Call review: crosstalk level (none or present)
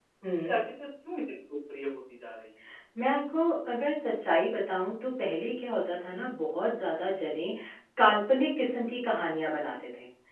none